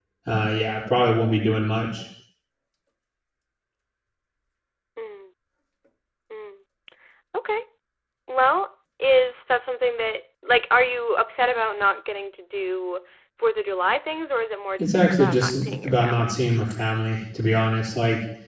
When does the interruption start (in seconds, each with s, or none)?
14.8 s